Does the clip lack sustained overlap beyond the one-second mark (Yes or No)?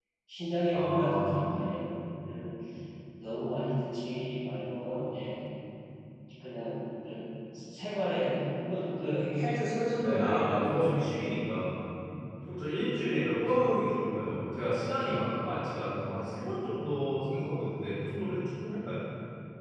No